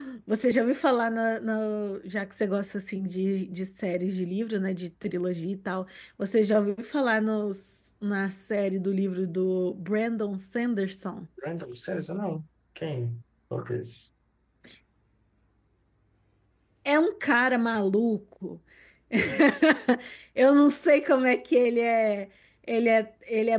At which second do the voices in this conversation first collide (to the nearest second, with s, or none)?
none